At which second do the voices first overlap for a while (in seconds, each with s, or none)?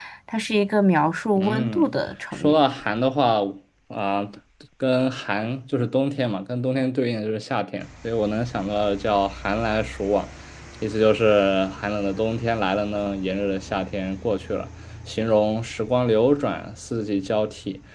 1.4 s